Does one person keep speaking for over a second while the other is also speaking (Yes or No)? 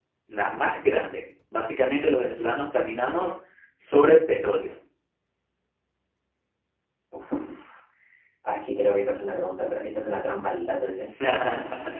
No